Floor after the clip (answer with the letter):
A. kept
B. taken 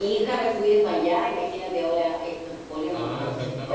B